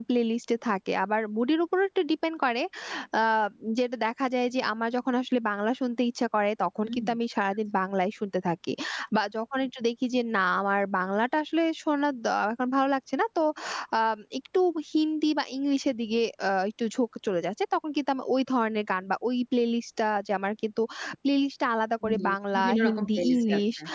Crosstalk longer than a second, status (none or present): present